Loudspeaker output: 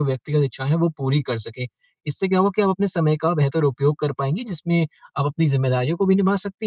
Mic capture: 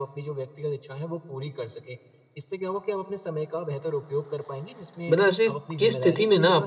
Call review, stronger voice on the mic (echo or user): user